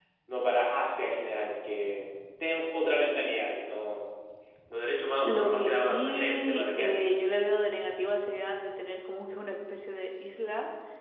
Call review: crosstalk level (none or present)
present